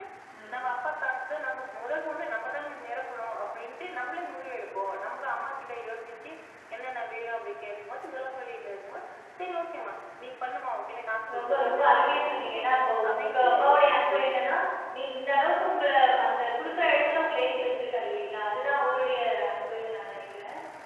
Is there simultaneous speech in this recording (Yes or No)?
Yes